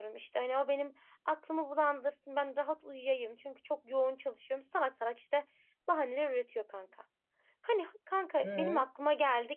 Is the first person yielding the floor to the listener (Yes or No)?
No